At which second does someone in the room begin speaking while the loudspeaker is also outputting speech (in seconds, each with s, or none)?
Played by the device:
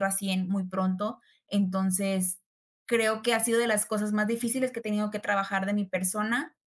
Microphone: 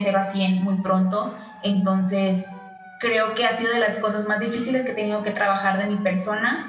none